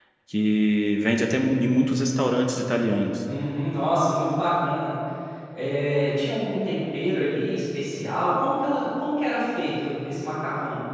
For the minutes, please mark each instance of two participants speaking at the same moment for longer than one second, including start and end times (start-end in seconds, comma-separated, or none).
none